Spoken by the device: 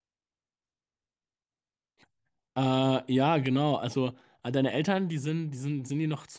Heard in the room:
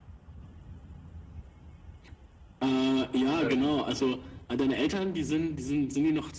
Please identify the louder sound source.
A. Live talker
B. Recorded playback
B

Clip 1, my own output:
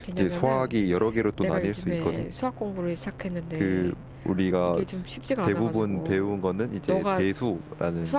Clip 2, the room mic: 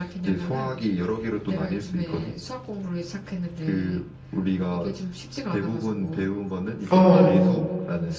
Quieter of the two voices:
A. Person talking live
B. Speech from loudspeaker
B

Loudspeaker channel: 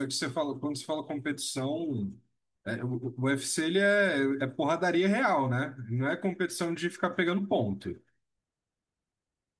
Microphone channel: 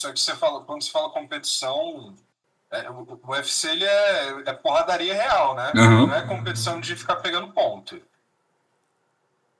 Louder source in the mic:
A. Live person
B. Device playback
A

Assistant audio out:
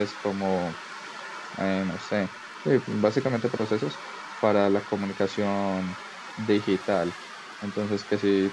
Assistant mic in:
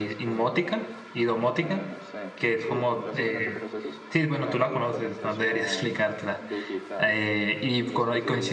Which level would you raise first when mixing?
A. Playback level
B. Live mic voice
A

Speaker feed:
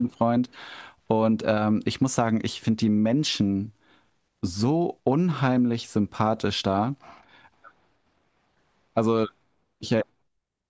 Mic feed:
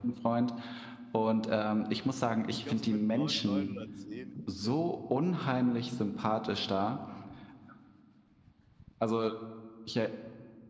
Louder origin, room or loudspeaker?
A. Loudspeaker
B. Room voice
A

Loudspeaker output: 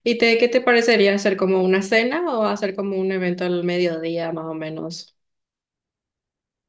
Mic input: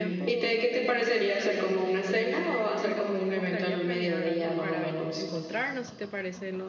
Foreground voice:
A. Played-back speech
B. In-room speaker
A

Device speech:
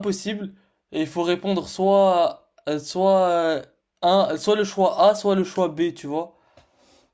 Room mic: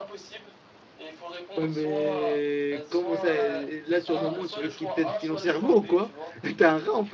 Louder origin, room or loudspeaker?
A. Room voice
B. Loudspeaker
A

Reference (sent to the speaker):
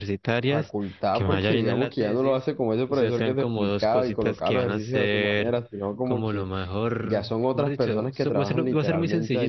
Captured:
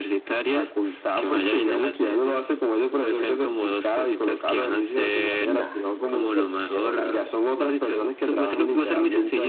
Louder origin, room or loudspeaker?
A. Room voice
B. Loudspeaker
B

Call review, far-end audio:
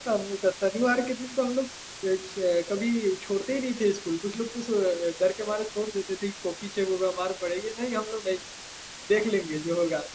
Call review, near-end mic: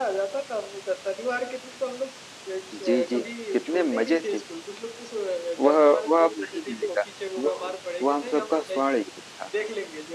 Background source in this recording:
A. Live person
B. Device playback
B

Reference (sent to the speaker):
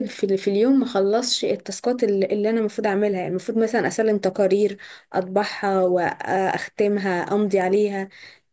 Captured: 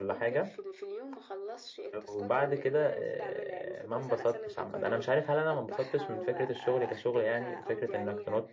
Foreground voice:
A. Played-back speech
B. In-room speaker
B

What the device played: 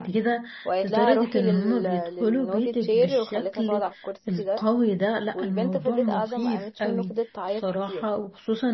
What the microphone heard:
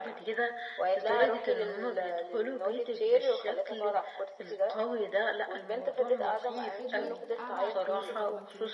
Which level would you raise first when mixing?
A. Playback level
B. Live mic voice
B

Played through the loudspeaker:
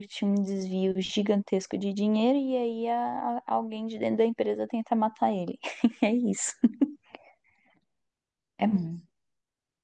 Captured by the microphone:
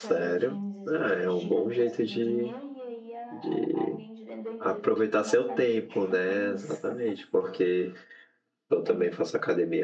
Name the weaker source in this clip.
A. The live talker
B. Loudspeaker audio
B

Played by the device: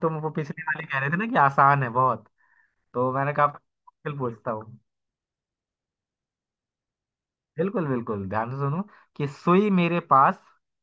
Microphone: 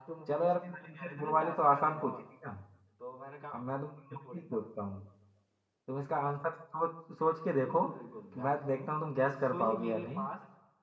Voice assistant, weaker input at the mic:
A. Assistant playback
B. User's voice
A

